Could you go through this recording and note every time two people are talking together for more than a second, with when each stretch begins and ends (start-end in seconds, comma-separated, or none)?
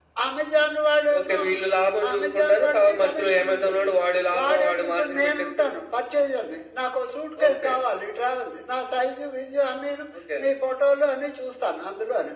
2.1-3.9, 4.3-5.7